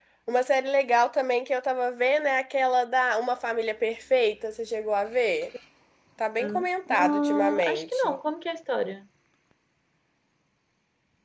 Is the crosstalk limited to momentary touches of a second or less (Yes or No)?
No